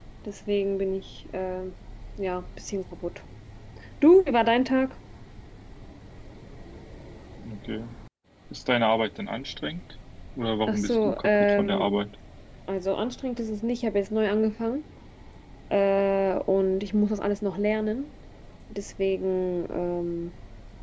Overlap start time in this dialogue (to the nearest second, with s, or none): 11 s